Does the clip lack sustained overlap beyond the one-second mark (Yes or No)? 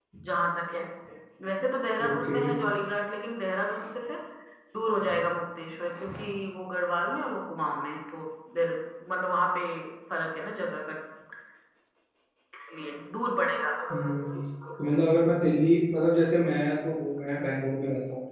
Yes